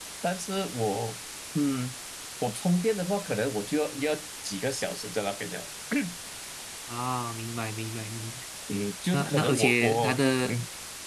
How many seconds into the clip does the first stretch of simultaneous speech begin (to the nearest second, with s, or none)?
9 s